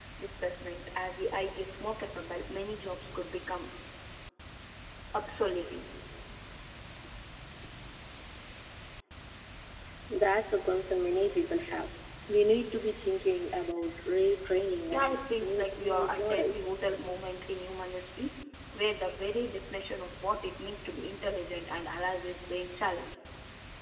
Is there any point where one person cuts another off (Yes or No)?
Yes